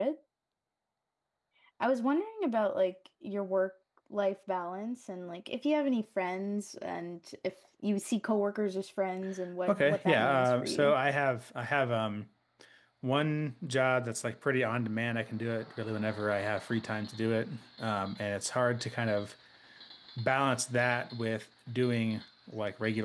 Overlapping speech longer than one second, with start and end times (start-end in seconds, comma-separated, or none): 9.7-10.9